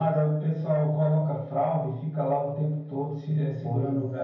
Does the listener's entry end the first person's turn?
Yes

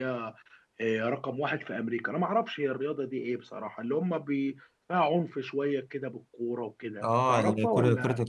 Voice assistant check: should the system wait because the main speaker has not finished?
No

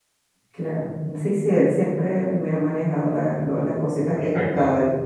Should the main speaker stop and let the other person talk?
No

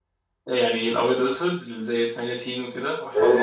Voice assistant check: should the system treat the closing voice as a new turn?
Yes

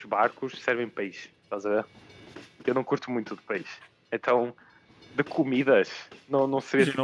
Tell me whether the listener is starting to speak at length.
Yes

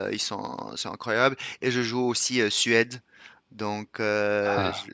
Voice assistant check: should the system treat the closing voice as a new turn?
No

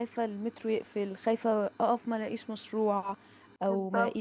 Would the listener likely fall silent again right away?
Yes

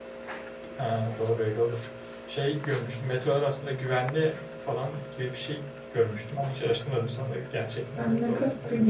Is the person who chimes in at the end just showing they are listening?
No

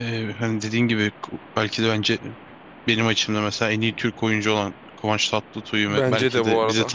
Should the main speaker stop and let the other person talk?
Yes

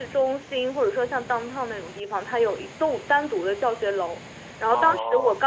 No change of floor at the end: Yes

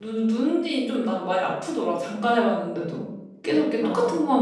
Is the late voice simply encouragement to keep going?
Yes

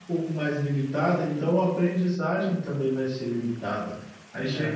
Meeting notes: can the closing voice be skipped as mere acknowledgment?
Yes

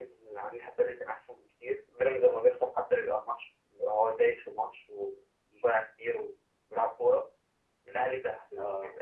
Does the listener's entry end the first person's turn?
No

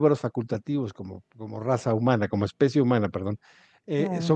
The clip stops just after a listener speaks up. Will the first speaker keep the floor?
Yes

